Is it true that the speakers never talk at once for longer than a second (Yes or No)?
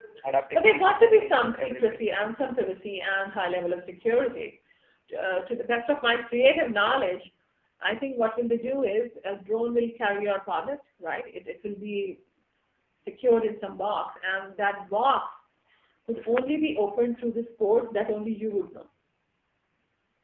No